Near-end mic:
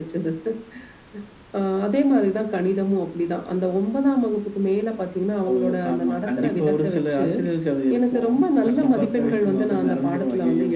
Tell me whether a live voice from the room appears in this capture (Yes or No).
No